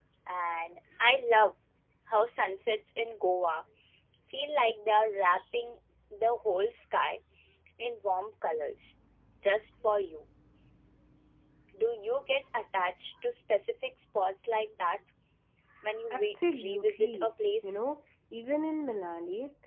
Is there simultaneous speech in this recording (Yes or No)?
Yes